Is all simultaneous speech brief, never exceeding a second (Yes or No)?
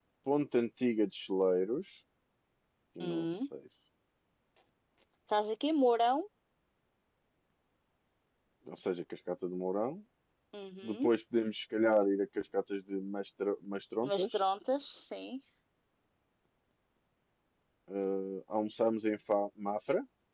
Yes